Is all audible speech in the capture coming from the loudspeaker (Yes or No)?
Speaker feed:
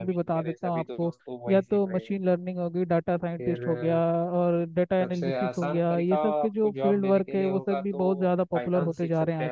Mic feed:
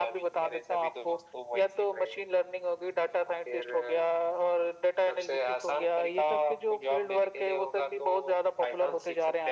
Yes